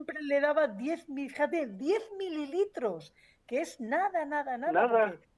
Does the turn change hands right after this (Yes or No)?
No